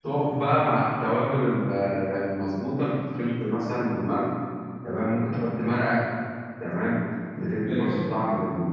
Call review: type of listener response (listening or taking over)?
listening